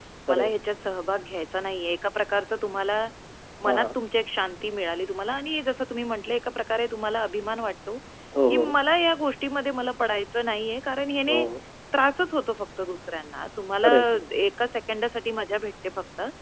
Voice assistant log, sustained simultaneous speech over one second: none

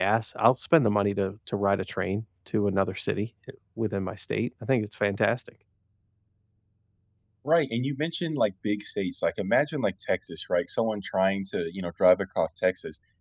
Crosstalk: none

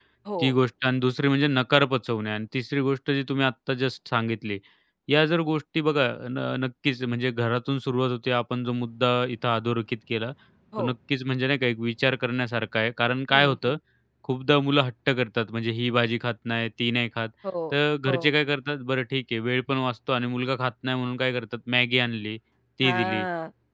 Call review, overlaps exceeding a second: none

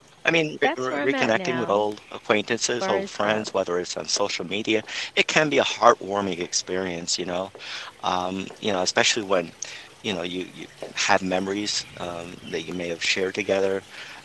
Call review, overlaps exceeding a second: present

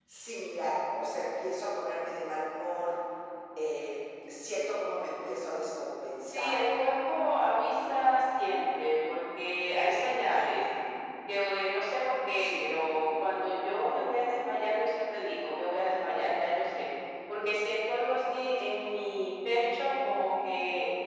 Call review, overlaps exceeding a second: none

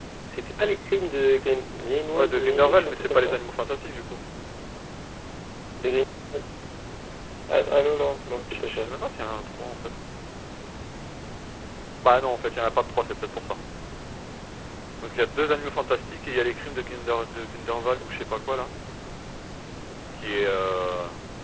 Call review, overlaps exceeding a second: present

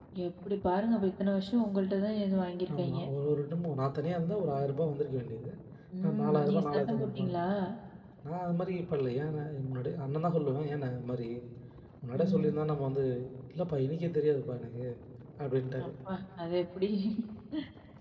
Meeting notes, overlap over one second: present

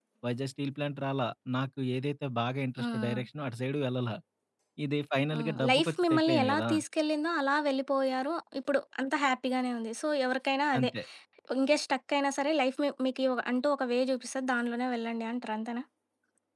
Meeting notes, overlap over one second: present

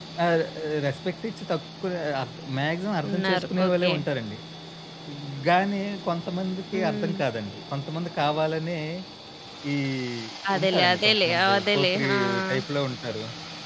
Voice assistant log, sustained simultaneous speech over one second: present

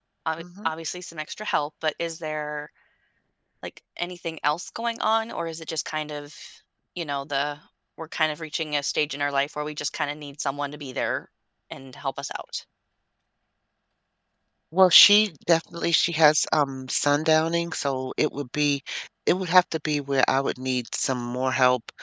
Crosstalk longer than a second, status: none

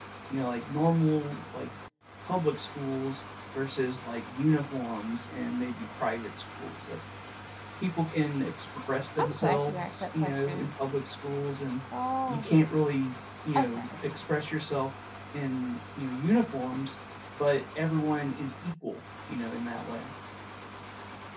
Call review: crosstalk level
present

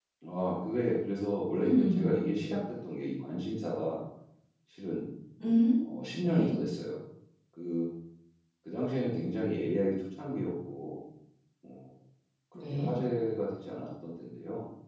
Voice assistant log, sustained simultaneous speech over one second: none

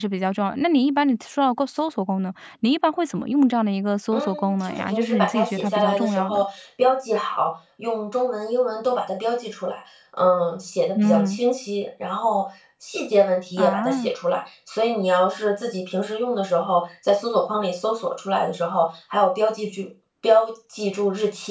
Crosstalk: present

